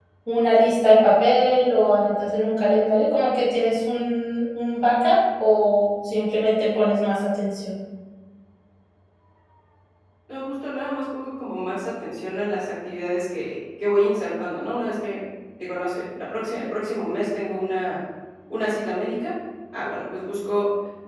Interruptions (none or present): none